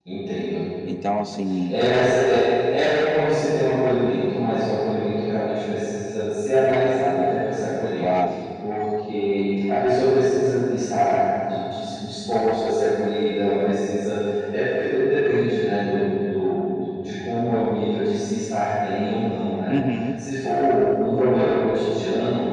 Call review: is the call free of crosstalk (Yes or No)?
Yes